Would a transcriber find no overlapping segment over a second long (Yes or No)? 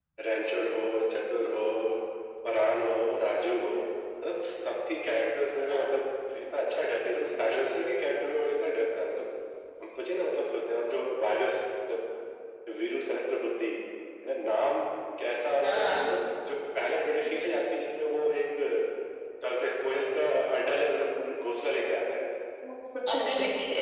Yes